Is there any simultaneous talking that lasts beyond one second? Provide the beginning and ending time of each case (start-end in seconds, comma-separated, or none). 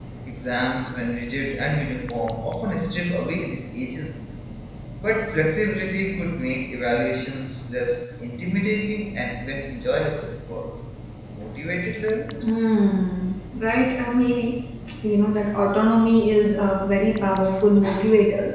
none